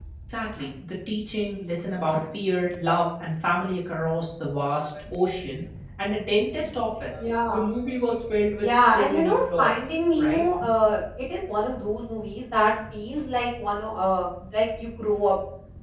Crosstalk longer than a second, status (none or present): present